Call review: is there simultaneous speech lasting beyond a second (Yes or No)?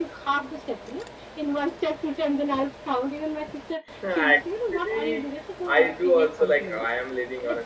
Yes